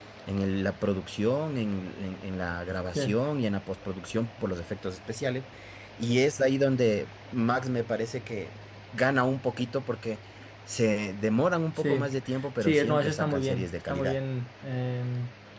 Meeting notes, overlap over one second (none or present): present